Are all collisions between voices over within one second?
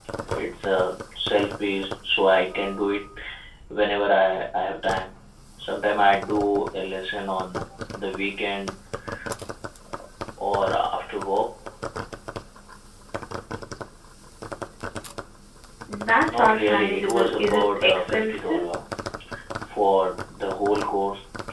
No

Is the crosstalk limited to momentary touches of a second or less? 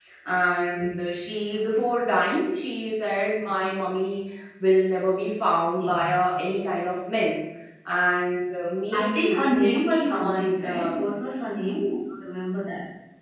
No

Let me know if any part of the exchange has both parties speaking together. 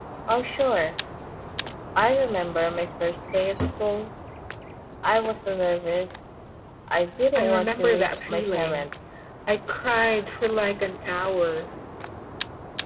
Yes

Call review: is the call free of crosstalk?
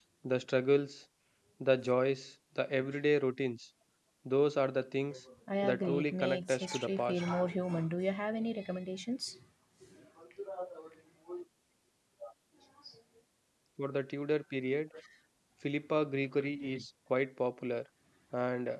No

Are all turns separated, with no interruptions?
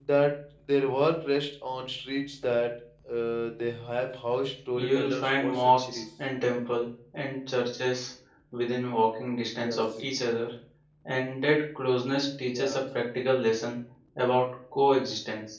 No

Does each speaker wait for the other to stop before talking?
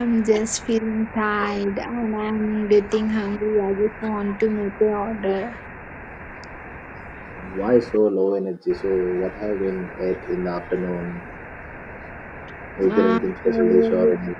No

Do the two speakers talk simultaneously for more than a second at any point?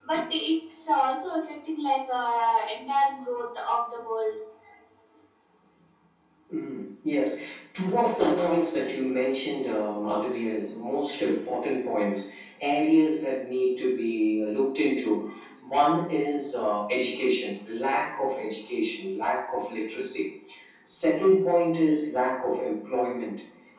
No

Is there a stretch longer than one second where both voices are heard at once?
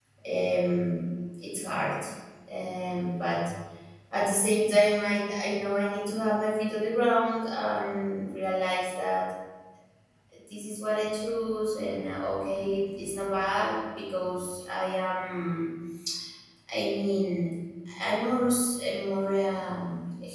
No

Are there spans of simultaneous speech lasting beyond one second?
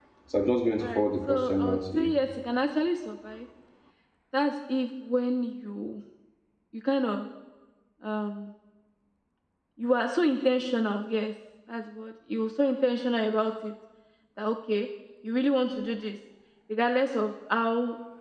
Yes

